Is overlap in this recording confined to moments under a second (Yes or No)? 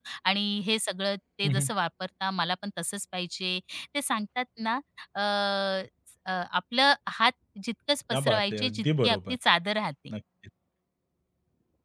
No